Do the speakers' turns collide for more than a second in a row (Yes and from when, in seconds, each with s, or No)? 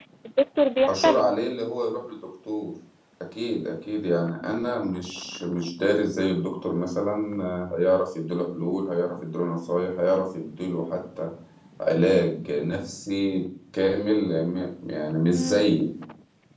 No